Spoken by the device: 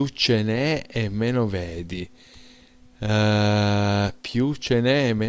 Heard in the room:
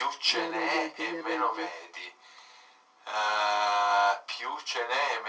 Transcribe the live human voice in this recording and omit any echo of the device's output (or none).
No, no, niente, mi arrendo.